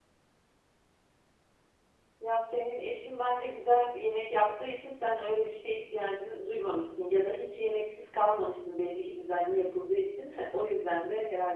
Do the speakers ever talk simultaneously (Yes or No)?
No